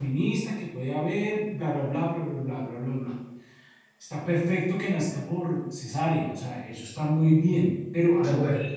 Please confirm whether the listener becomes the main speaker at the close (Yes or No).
No